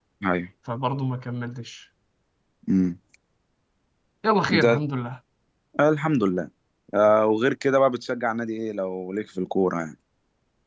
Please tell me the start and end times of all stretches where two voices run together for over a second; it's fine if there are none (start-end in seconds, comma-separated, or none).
none